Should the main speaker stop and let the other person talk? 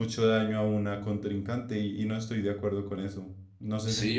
Yes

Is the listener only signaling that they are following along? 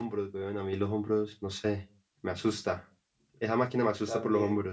Yes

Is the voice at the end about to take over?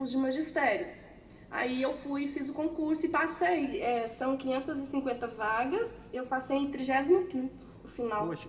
Yes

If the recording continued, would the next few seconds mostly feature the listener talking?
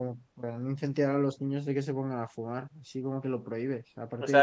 Yes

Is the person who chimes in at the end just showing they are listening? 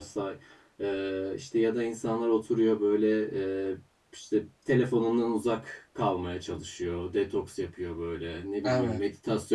Yes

